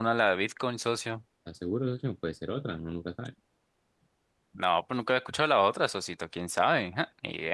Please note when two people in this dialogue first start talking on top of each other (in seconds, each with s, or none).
none